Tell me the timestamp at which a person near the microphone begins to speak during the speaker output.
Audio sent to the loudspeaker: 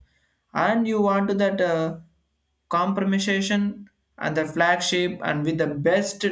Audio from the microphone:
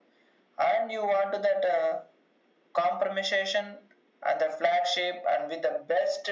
none

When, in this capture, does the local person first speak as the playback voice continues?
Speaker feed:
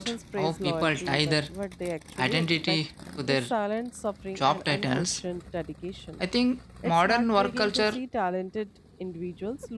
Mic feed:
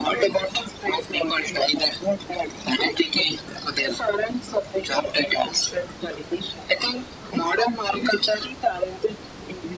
none

